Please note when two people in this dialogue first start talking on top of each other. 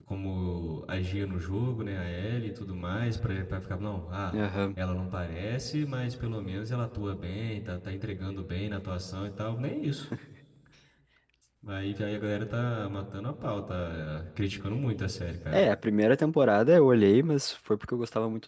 none

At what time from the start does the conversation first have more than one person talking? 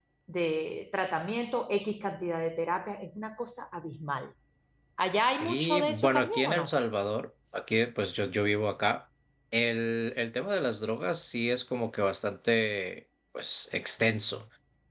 5.4 s

